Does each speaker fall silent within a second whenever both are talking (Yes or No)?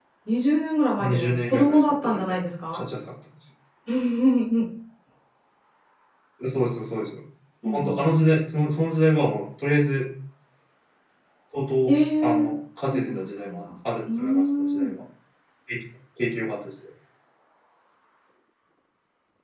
No